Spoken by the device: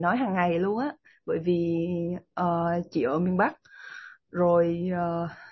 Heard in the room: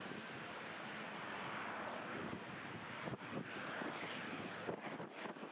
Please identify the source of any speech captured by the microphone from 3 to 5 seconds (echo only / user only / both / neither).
neither